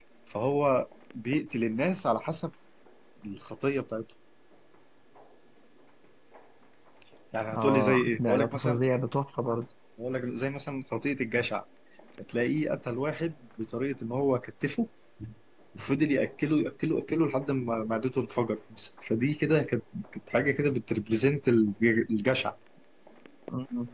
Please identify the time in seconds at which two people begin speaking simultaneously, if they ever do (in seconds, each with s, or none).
7.5 s